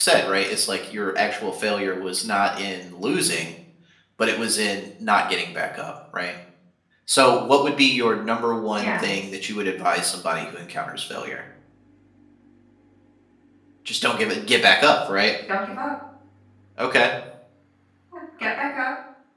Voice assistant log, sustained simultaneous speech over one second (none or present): none